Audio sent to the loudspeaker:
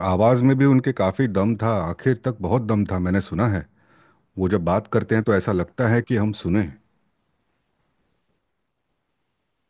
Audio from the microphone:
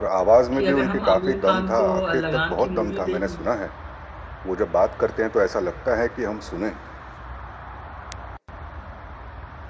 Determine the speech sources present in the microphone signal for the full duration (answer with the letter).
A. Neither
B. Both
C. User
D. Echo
B